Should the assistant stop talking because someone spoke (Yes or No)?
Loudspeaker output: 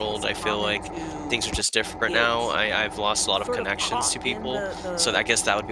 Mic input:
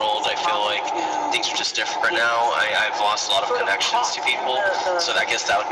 No